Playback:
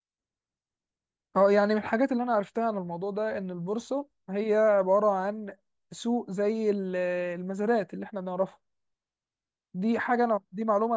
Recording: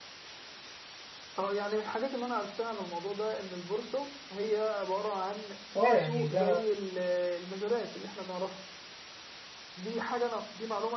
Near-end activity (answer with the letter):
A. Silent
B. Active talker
B